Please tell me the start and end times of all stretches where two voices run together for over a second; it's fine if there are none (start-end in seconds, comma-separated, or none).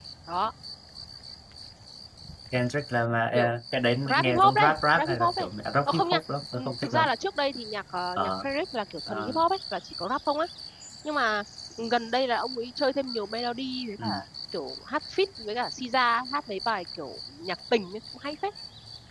4.1-5.5